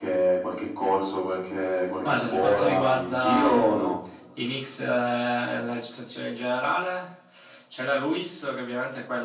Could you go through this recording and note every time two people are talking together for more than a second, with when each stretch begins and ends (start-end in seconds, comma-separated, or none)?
2.0-3.7